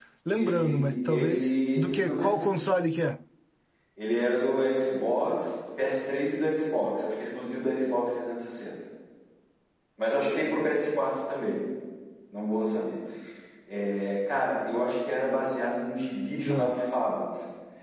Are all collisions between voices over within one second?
No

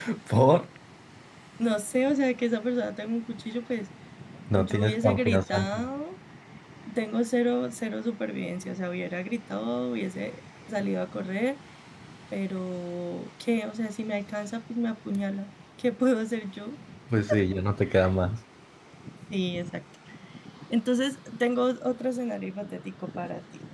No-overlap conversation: No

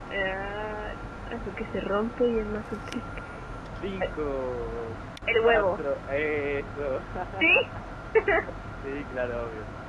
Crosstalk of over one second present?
No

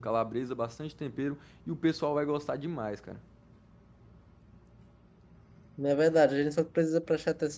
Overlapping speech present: No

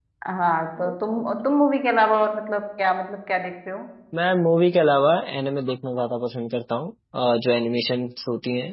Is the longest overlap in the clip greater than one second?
No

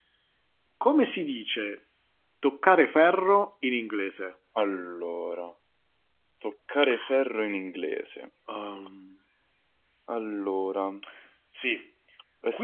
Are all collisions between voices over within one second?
Yes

